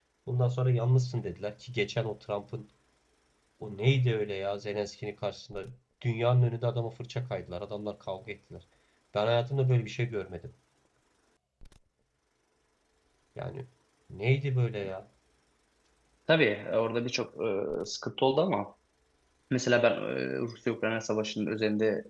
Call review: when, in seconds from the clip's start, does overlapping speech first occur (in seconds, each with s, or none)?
none